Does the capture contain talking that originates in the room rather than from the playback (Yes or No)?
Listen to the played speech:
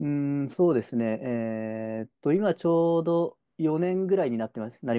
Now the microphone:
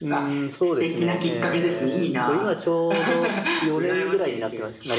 Yes